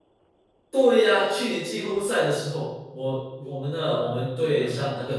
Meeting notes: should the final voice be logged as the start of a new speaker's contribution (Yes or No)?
No